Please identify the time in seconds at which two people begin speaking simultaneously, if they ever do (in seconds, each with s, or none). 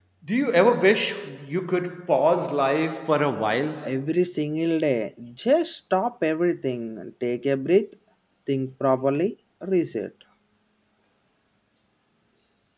none